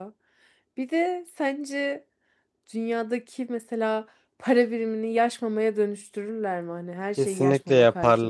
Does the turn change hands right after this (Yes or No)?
Yes